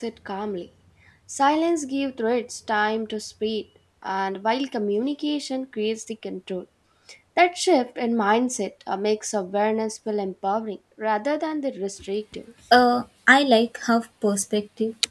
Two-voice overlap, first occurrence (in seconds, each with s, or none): none